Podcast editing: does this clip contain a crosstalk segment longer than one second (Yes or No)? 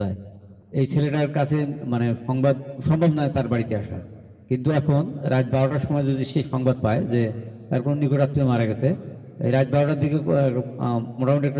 No